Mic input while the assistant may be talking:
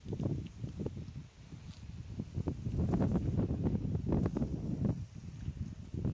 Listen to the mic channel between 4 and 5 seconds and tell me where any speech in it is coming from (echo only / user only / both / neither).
neither